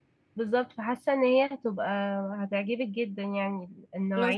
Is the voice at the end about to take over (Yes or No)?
Yes